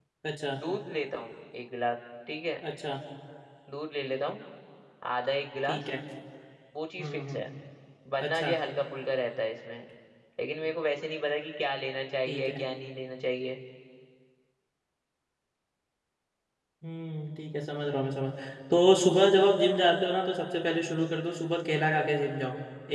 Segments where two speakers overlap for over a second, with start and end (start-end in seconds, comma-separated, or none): none